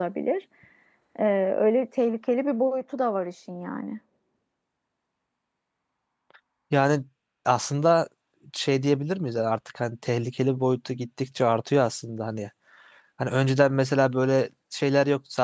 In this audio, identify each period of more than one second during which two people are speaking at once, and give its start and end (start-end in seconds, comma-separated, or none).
none